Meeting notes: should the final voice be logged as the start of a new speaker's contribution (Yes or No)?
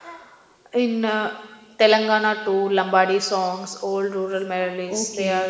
Yes